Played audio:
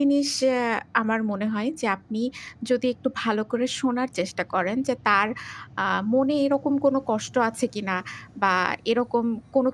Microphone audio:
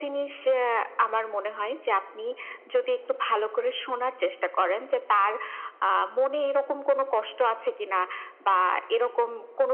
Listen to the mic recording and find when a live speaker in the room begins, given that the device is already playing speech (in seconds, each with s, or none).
none